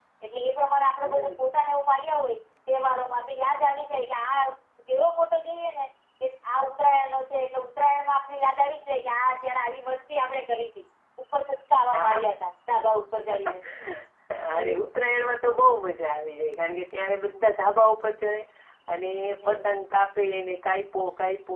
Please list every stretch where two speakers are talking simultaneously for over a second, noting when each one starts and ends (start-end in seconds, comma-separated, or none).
none